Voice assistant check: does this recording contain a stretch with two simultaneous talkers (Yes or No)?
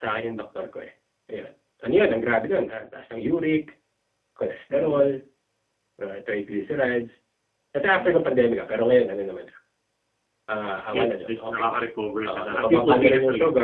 Yes